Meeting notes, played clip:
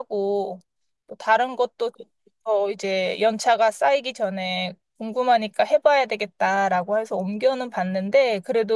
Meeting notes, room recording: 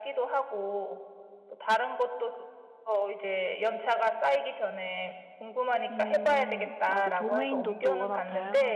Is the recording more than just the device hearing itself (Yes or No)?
Yes